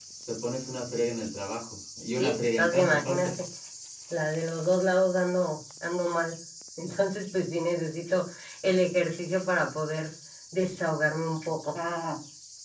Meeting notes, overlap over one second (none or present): present